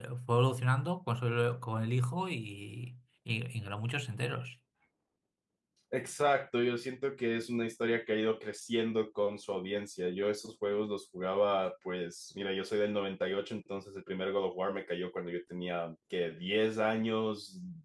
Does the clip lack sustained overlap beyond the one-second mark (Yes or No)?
Yes